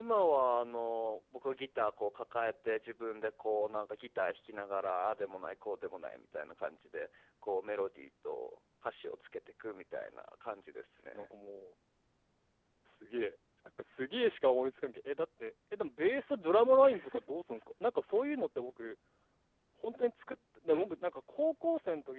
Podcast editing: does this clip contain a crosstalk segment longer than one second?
No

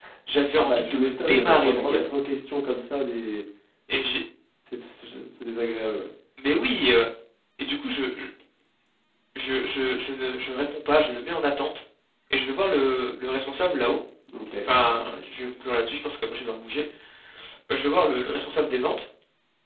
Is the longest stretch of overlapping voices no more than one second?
No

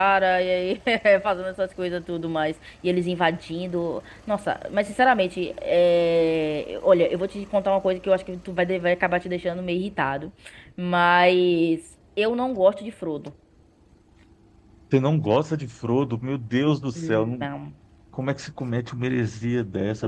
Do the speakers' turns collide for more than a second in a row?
No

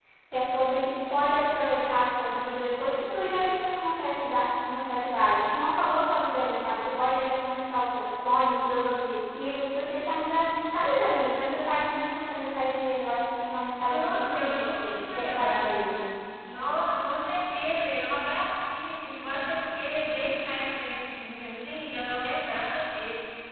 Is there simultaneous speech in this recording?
Yes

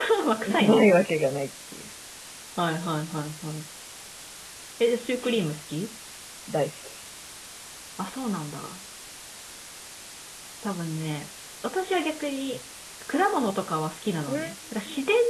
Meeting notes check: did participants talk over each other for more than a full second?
No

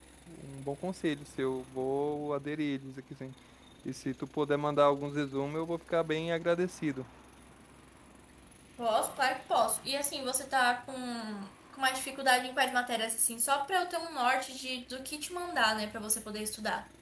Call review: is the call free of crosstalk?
Yes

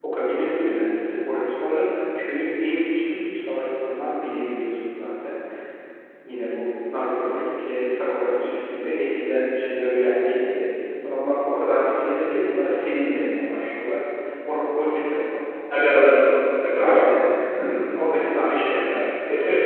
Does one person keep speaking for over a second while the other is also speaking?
No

